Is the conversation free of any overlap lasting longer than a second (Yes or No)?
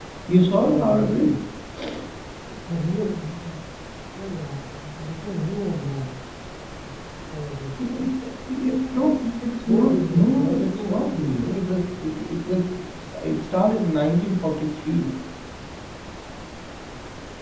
No